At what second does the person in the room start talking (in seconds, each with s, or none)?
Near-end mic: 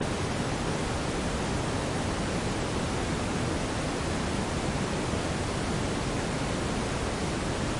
none